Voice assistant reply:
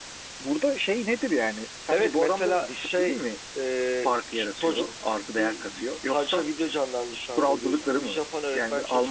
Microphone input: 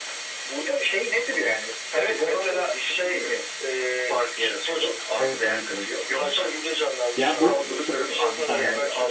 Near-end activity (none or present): present